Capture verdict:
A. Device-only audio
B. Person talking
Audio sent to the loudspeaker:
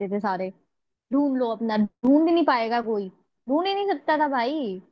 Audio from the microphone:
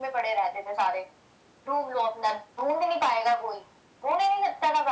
A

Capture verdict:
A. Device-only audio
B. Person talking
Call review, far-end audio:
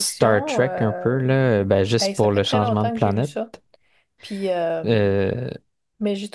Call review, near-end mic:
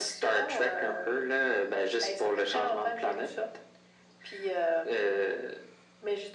A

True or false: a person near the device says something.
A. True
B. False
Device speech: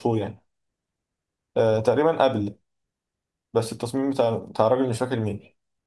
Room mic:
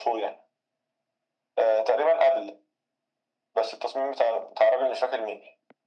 B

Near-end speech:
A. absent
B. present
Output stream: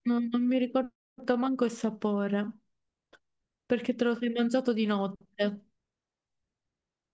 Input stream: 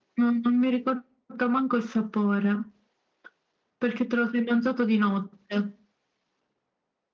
A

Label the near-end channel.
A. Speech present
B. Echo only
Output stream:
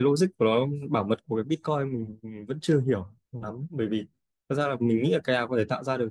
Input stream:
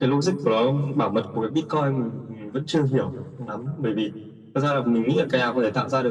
B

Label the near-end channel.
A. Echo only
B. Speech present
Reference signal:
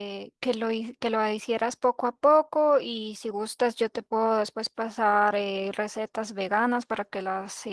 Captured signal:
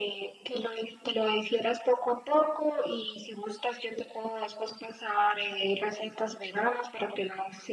A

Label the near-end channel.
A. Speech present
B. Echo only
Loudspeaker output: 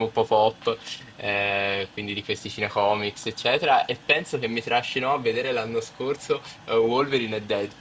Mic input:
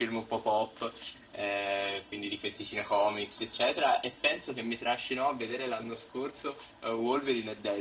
B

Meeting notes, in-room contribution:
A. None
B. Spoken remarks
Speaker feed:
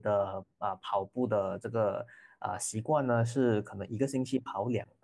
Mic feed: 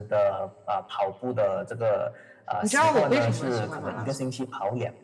B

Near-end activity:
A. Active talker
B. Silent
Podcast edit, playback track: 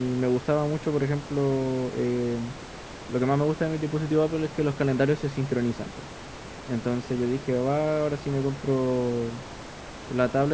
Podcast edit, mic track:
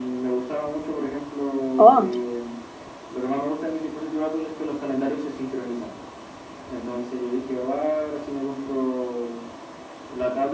A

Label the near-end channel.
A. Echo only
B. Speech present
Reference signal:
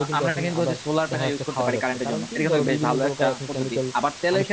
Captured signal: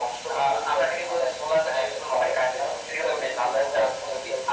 A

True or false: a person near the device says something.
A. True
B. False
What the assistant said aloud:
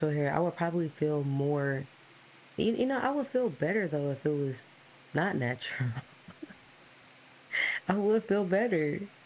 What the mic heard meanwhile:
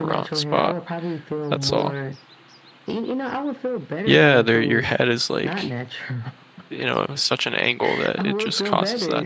A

